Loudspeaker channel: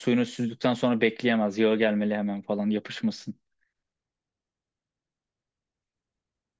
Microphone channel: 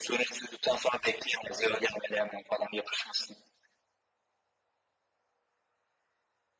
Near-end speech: none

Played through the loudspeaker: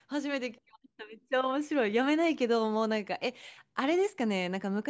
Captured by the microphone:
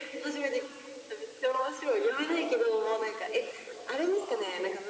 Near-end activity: none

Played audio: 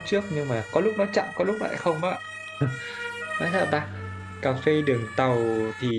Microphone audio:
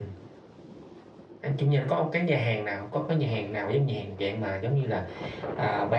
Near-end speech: present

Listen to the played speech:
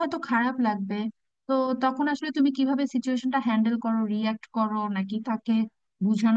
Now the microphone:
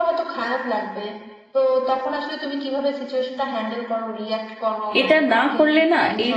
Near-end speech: present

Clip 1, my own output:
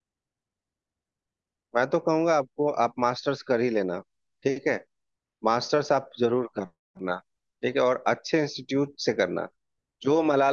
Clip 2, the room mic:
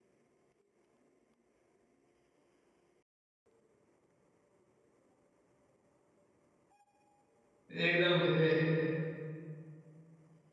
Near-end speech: present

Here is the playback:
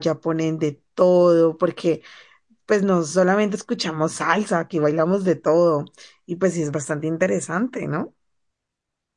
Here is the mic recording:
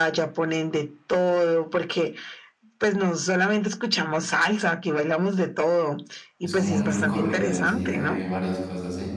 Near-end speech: present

